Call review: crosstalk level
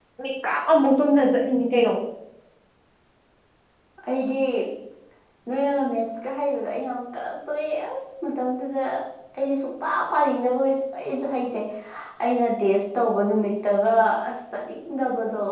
none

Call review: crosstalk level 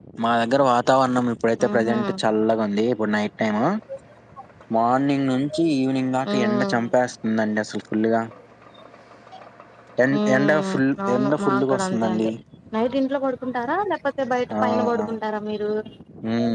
present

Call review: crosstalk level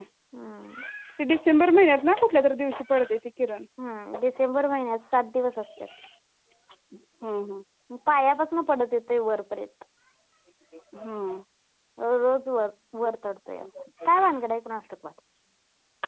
none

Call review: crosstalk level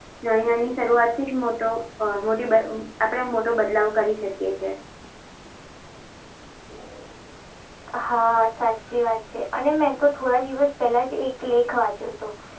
none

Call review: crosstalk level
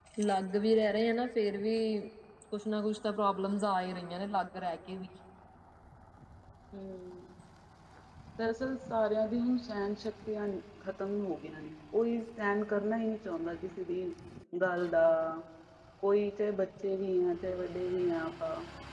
none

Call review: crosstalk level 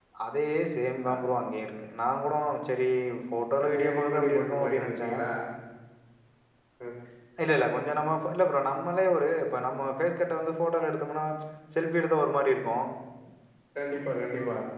present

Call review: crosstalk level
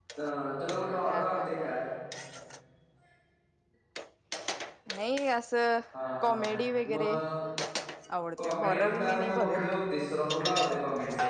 present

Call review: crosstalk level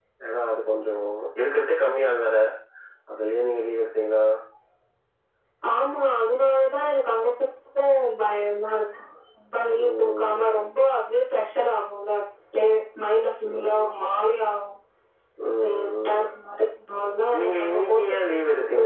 present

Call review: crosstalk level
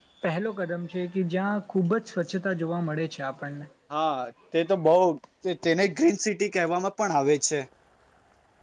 none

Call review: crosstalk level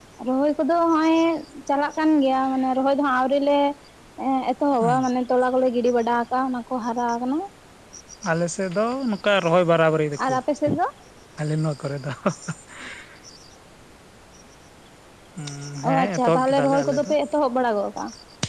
present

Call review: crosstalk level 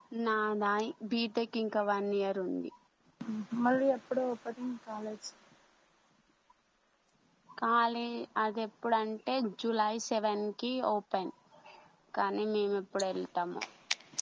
none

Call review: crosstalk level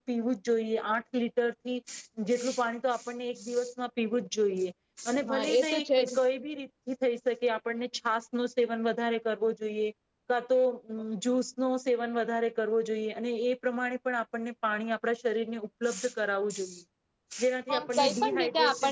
present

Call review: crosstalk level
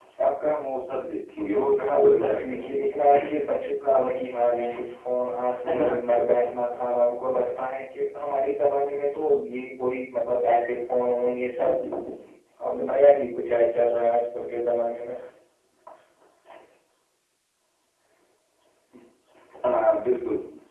present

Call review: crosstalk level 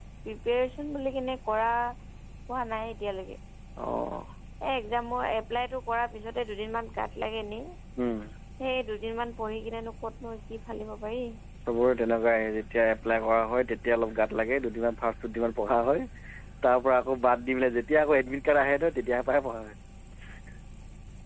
none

